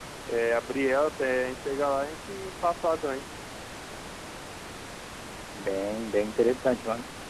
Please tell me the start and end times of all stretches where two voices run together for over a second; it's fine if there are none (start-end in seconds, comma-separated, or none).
none